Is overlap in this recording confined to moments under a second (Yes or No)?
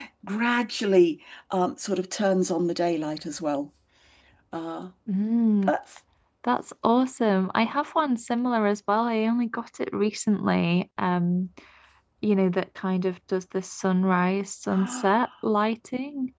Yes